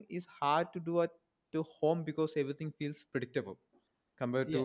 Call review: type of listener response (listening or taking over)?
taking over